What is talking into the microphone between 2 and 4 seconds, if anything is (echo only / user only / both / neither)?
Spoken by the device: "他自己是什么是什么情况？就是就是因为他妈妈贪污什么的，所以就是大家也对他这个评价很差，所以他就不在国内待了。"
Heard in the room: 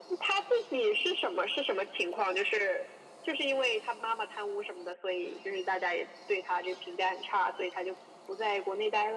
echo only